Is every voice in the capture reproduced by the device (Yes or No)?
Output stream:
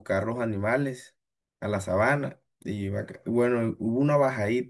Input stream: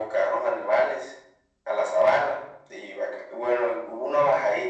Yes